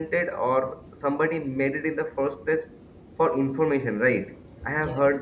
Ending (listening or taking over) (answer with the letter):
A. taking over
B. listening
B